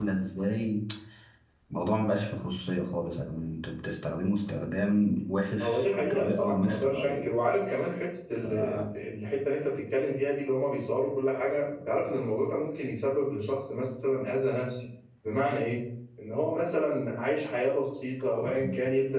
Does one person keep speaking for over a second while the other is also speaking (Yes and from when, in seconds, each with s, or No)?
Yes, from 5.6 s